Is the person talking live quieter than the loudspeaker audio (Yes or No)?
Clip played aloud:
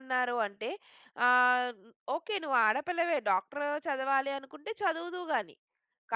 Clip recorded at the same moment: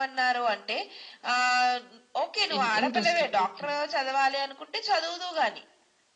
Yes